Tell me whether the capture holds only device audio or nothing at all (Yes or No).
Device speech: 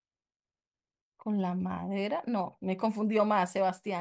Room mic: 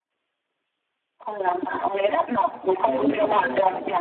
No